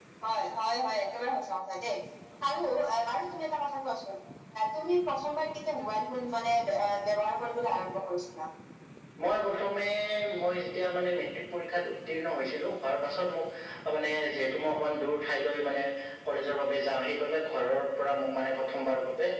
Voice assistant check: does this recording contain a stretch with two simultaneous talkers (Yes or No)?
No